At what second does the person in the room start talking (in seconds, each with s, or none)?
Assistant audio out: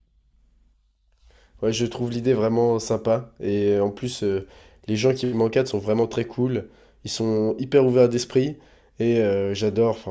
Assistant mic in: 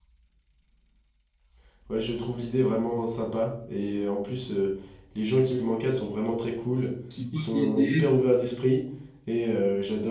7.1 s